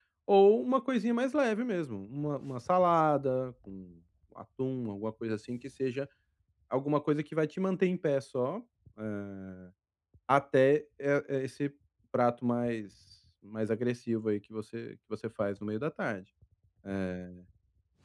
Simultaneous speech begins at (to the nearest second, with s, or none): none